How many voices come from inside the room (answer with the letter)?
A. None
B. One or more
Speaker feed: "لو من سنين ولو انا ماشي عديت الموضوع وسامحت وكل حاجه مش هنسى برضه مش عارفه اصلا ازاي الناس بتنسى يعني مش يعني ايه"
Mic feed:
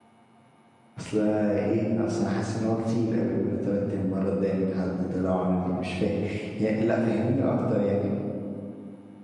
B